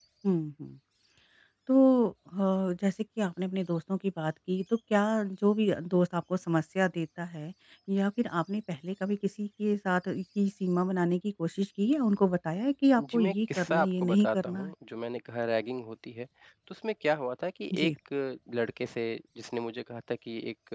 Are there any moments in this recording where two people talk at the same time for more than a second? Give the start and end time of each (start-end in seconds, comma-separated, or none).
13.0-14.7